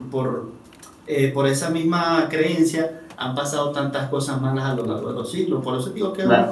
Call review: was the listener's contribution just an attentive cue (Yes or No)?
No